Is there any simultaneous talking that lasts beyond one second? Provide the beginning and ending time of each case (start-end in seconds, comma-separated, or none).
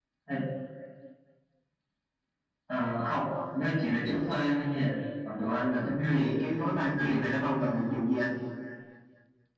6.1-7.5